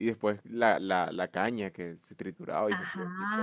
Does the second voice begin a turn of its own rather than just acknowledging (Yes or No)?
Yes